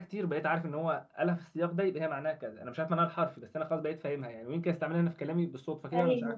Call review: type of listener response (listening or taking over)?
listening